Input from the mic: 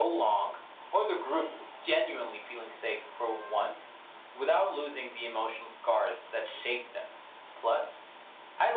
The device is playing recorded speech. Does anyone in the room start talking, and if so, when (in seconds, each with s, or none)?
none